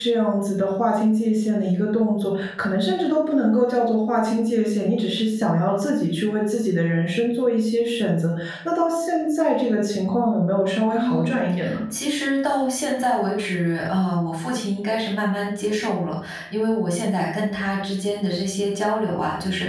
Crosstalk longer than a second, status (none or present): none